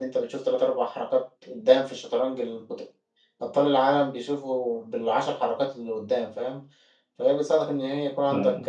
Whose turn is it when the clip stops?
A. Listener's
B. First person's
B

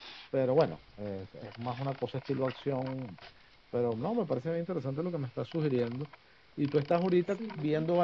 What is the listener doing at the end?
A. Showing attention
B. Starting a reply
A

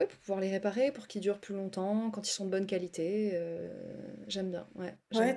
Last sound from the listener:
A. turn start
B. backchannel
A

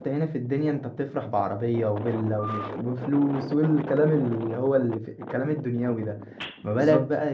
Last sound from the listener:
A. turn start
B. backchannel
B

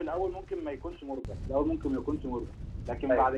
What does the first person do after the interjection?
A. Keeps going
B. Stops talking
A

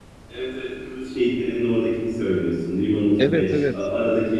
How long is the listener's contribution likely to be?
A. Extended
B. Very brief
B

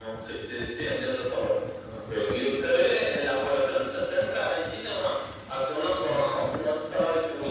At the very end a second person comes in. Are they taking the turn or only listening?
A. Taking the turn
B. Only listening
A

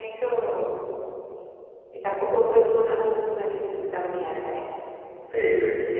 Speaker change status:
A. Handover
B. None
A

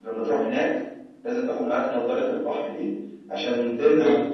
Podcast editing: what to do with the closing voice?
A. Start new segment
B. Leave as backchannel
B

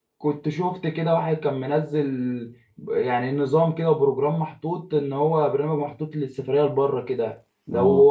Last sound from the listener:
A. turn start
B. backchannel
B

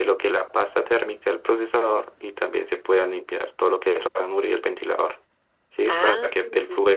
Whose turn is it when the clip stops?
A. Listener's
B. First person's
B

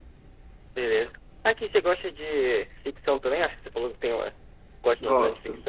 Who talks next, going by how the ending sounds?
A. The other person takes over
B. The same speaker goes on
A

